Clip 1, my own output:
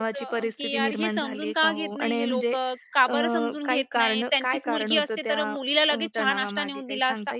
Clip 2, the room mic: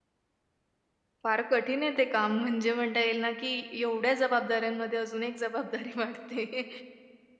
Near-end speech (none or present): present